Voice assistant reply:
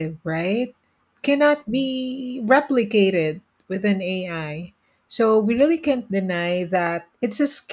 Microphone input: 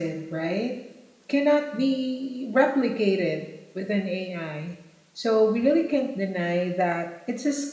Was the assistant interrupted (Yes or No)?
No